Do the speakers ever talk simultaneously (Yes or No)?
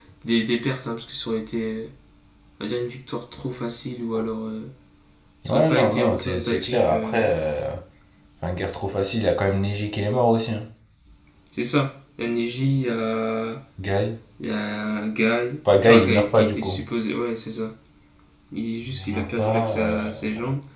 Yes